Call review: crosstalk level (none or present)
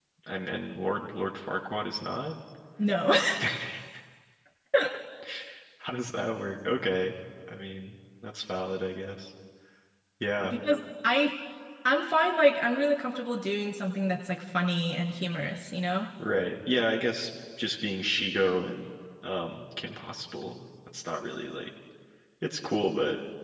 none